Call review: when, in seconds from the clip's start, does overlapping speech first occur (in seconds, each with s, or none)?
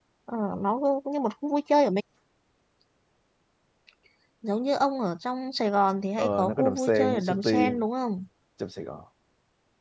6.2 s